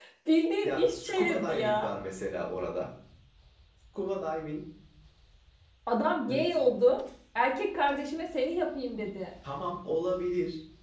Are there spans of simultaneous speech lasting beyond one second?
Yes, from 0.6 s

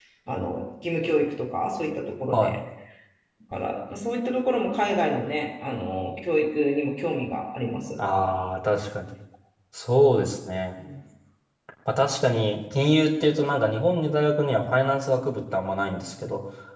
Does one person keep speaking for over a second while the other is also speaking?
No

